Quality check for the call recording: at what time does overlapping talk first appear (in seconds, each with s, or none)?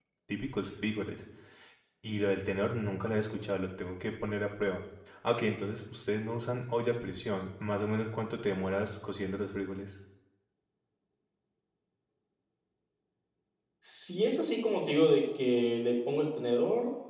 none